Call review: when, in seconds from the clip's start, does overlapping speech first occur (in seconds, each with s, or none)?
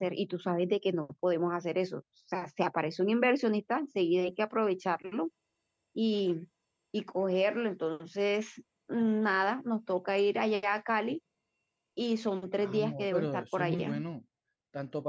12.6 s